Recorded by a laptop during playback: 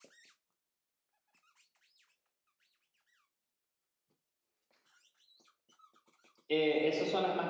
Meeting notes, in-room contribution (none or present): present